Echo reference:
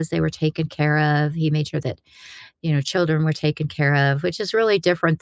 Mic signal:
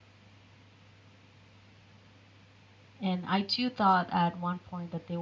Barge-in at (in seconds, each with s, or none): 3.0 s